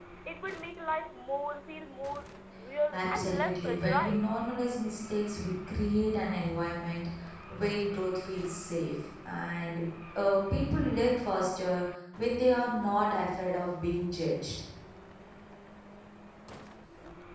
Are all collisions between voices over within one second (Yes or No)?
No